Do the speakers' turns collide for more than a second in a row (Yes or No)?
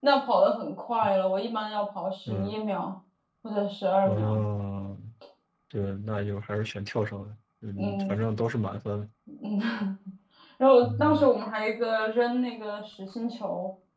No